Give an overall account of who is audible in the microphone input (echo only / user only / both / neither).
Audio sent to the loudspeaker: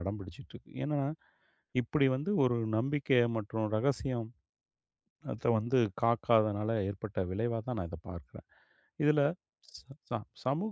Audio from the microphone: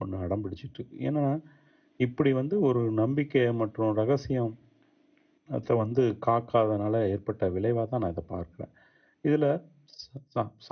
echo only